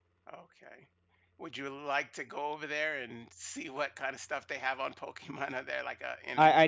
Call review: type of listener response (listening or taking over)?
taking over